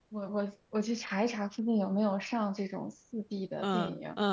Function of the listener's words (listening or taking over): taking over